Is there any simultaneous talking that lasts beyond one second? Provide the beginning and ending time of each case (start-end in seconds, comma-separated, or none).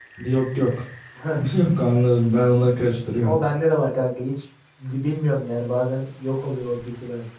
none